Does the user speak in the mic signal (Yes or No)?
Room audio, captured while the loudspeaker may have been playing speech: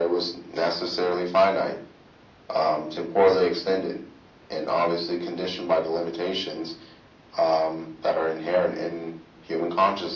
No